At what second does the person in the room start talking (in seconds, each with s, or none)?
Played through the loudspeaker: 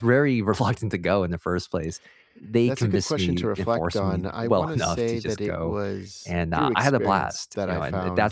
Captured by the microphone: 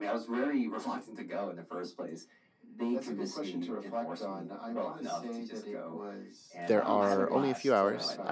6.7 s